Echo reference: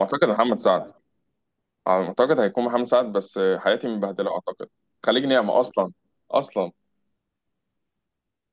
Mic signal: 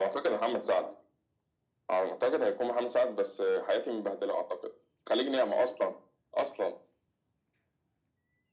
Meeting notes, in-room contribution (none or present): none